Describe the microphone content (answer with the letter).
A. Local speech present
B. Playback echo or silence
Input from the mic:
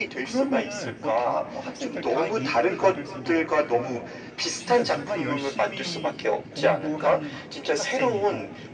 A